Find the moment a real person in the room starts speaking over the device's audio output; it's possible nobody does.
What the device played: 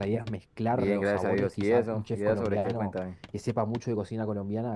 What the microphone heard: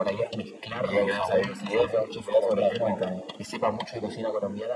none

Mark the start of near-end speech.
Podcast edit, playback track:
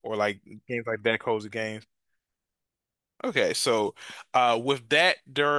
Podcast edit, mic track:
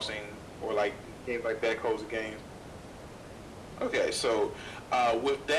none

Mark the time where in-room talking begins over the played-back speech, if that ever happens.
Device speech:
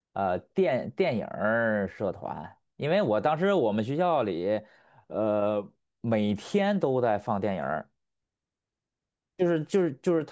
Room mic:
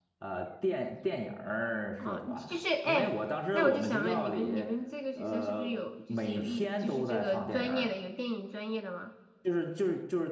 2.0 s

